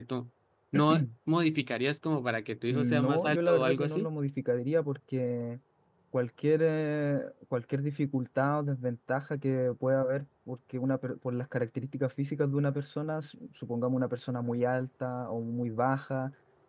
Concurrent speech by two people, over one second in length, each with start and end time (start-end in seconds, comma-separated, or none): 2.7-4.1